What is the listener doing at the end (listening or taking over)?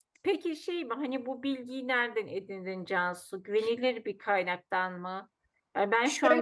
listening